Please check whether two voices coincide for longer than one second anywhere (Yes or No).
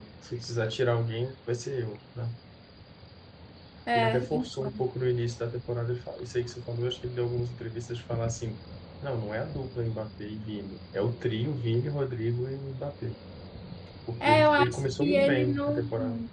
Yes